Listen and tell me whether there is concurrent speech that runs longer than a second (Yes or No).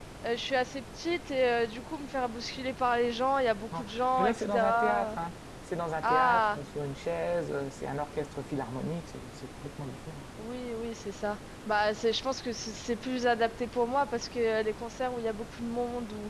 Yes